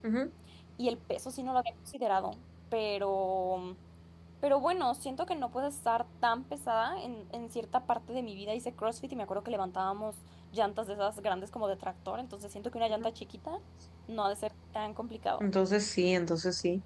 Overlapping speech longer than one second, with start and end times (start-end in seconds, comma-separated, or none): none